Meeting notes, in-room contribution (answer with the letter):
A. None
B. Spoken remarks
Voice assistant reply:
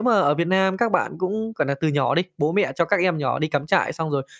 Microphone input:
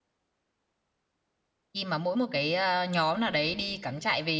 B